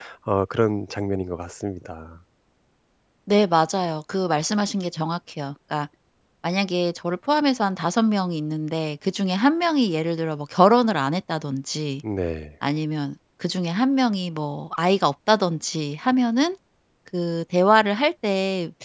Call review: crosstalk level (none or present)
none